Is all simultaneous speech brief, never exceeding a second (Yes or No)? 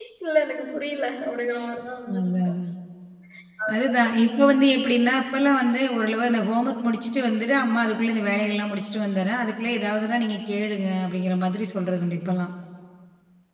Yes